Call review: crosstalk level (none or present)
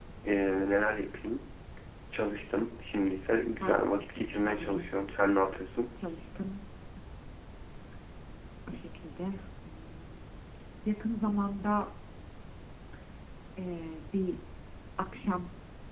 present